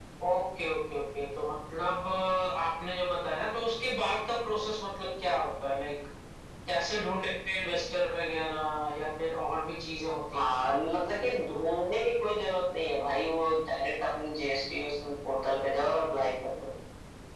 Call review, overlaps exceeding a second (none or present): none